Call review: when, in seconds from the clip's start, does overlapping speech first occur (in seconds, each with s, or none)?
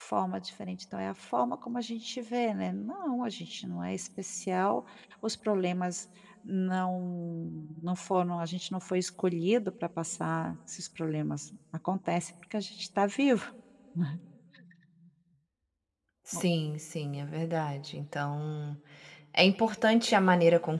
none